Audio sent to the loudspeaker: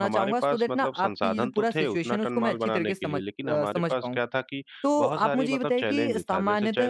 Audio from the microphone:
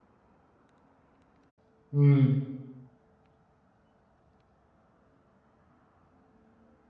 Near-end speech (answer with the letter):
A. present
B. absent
A